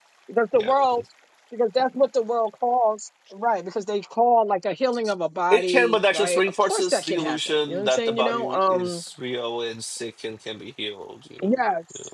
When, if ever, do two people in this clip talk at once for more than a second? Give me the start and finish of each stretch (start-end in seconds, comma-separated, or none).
5.5-9.0